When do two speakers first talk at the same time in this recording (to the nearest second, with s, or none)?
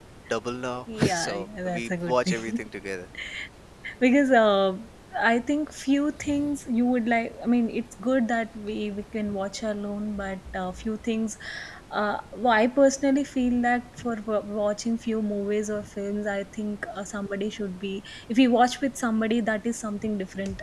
1 s